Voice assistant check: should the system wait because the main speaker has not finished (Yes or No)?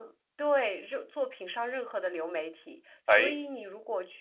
Yes